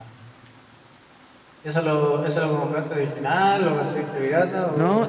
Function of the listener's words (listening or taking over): taking over